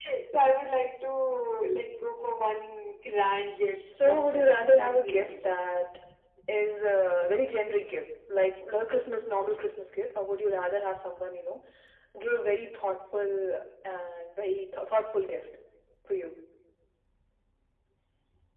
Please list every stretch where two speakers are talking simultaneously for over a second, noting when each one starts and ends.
4.0-5.5

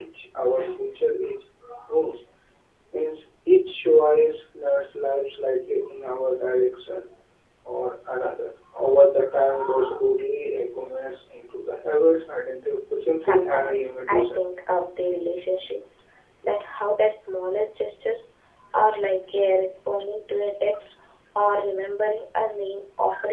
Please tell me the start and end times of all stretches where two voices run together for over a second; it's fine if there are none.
13.2-14.4

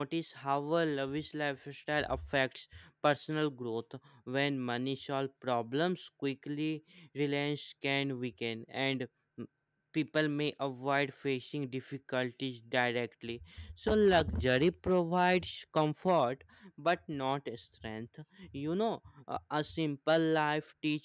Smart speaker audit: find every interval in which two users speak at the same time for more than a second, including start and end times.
none

